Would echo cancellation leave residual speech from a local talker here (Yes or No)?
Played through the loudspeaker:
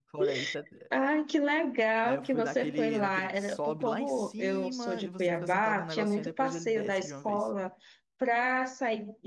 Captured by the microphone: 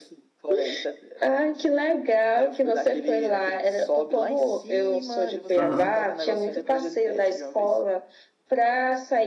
Yes